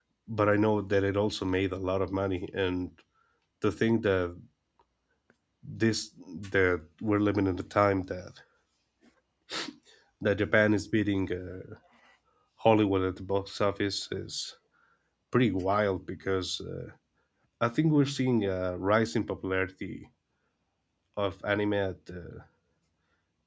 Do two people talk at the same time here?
No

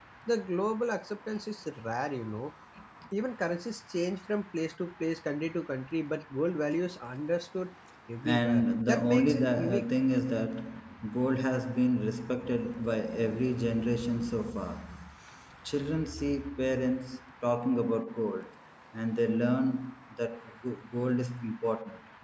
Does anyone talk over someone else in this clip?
Yes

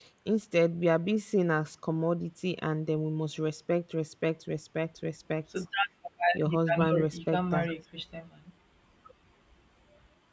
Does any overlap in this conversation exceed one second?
Yes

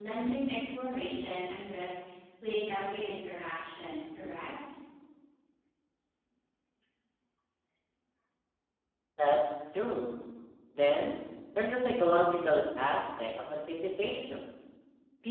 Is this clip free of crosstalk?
Yes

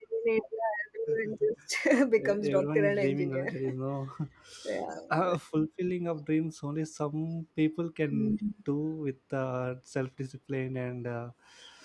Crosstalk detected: Yes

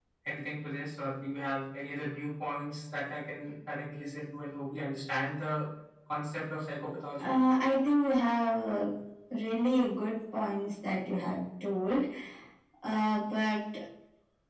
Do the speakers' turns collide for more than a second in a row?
No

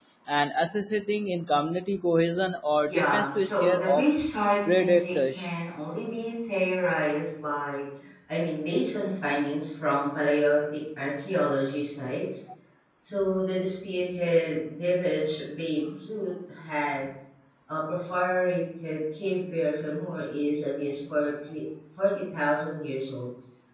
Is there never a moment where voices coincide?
No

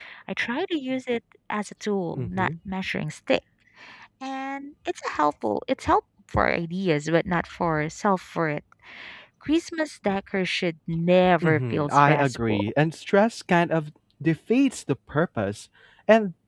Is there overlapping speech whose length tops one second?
Yes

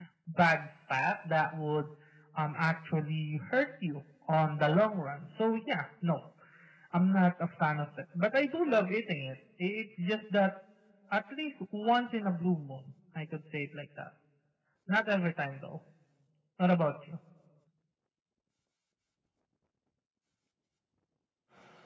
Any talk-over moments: No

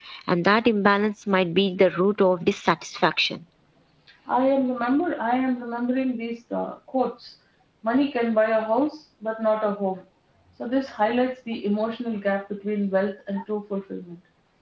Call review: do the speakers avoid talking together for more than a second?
Yes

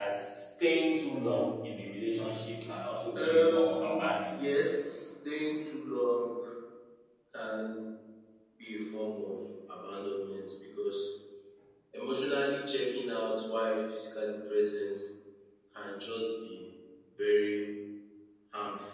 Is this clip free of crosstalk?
No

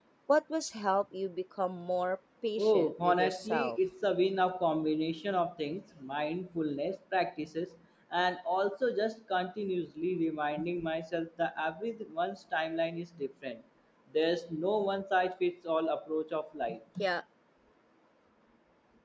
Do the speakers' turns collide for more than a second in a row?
Yes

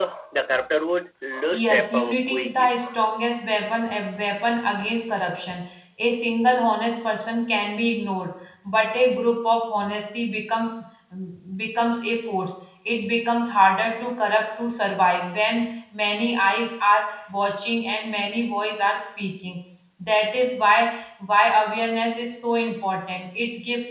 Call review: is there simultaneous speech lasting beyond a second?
Yes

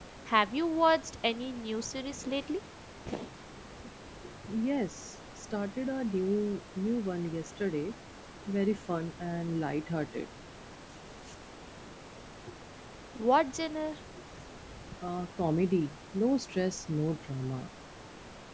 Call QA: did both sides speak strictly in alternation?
Yes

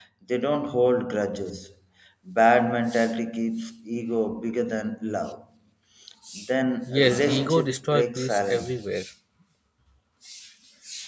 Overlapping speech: Yes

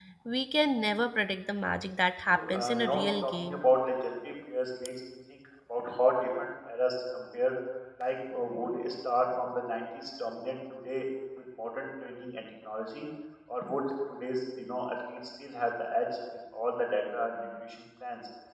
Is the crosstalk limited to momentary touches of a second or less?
No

